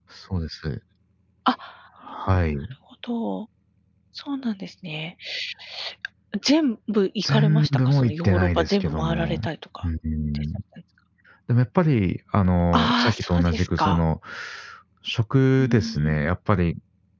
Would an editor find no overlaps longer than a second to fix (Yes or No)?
No